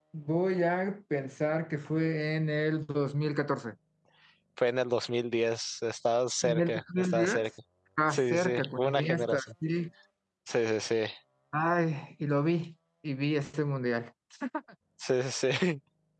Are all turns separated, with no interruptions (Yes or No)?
No